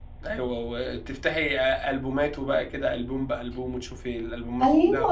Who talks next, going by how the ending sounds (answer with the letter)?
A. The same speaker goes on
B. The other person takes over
B